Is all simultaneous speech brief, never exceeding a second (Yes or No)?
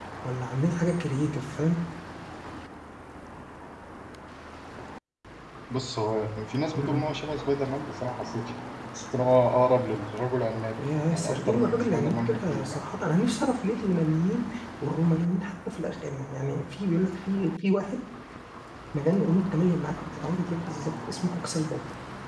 No